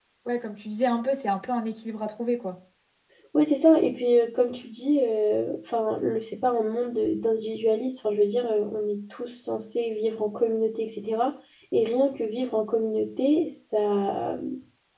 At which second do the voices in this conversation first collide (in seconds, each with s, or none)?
none